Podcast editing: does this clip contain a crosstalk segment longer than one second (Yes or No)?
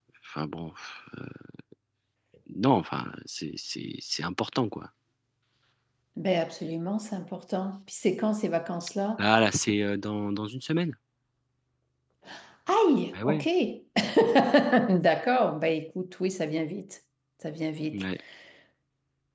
No